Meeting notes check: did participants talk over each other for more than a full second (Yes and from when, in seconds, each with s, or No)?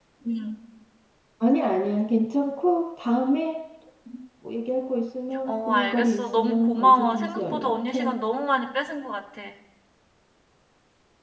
Yes, from 5.5 s